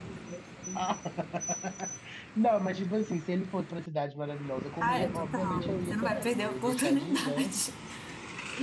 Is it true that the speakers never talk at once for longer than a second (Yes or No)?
No